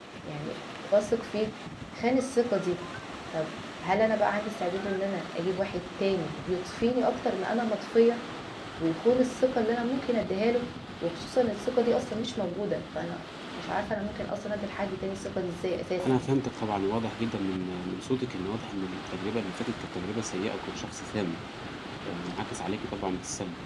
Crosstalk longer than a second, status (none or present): none